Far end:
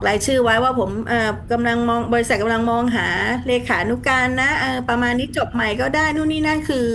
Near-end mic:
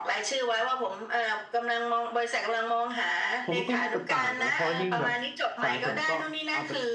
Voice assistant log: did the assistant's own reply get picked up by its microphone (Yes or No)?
Yes